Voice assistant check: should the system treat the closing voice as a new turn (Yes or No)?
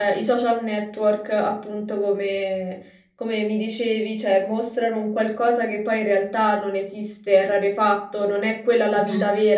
No